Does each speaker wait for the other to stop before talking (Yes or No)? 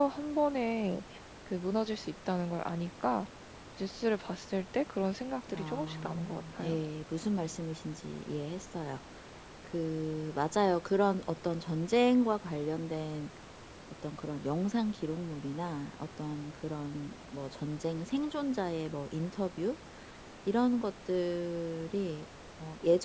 No